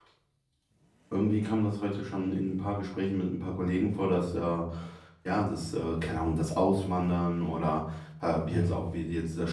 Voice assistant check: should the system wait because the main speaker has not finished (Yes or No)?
Yes